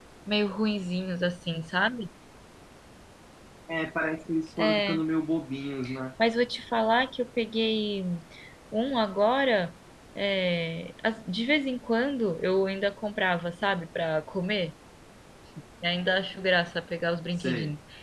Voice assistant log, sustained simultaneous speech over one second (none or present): none